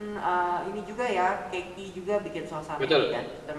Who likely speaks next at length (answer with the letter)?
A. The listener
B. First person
B